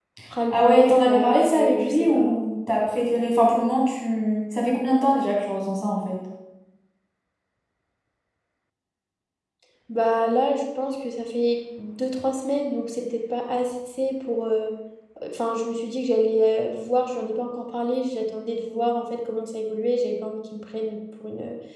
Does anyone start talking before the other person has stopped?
Yes, from 0.5 s

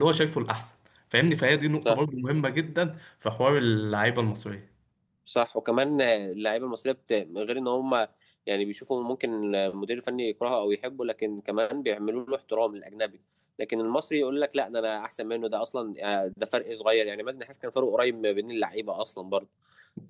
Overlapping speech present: No

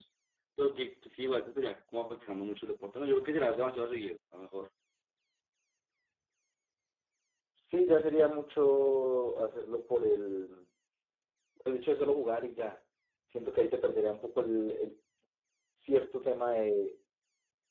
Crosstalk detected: No

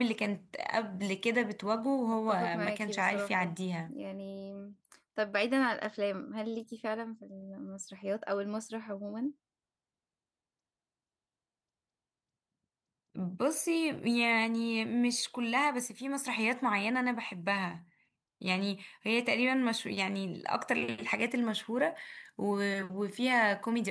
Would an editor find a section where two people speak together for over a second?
Yes, from 2.3 s

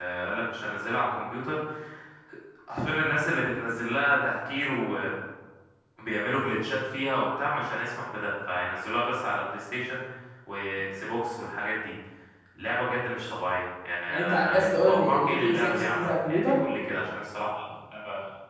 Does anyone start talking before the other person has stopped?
Yes, from 14.1 s

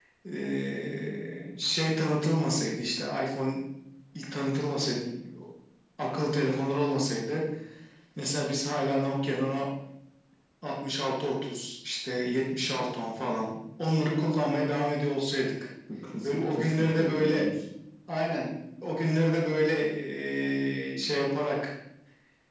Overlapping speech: Yes, from 16.2 s

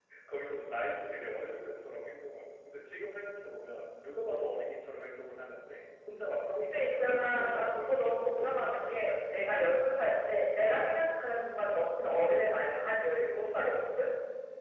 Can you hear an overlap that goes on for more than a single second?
Yes, from 6.7 s

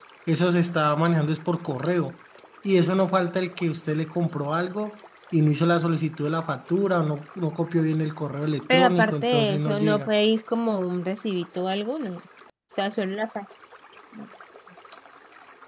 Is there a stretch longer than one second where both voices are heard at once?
Yes, from 8.7 s

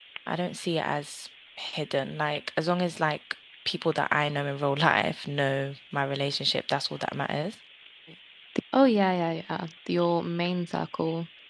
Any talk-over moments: No

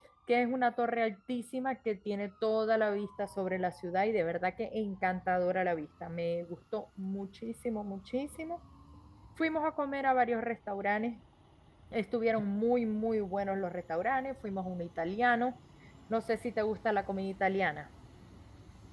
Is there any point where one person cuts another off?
No

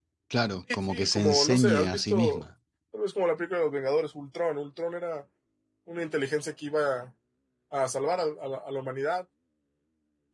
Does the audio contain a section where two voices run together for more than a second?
Yes, from 0.7 s

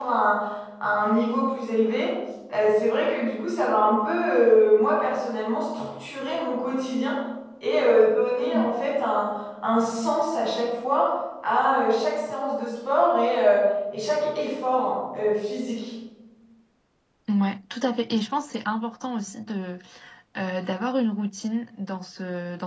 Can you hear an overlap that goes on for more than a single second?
No

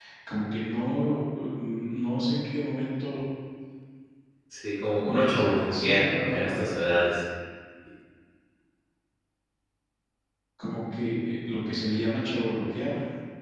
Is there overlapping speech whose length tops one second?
Yes, from 5.1 s

